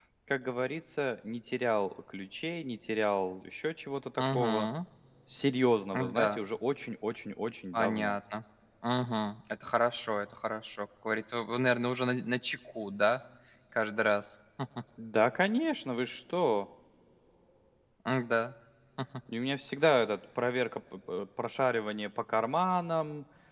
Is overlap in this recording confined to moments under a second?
Yes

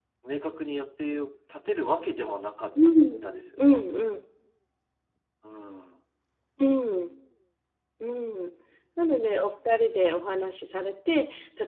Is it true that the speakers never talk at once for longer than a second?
Yes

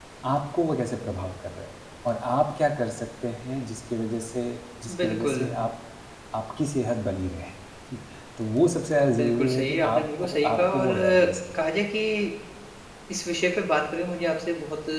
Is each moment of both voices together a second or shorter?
No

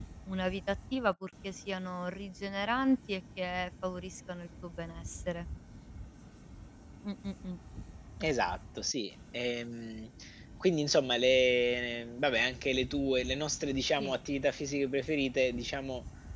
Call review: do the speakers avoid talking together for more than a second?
Yes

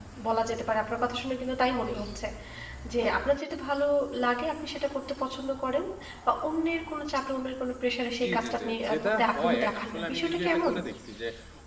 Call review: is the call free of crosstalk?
No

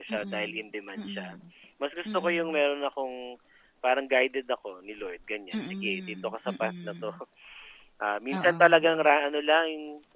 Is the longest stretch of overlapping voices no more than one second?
No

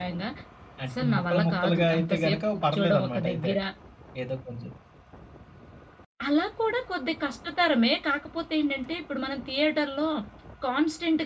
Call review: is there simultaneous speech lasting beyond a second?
Yes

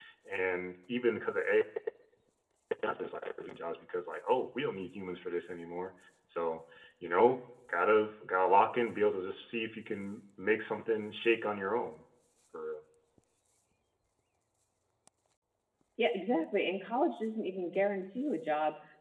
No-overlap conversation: Yes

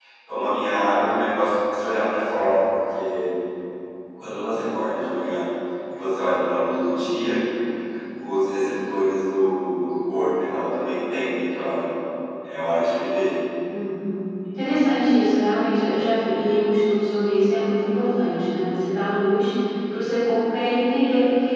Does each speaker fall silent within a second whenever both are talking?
Yes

